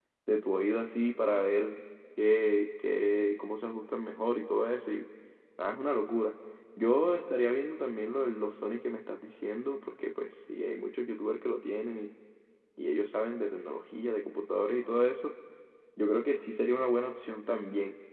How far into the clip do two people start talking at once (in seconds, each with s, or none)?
none